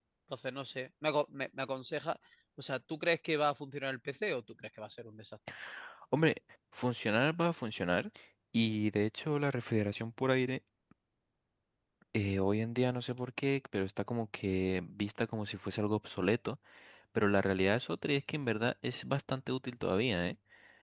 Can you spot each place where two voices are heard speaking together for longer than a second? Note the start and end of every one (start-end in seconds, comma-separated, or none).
none